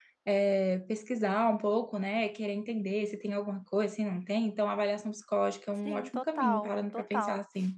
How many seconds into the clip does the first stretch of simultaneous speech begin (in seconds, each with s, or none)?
5.8 s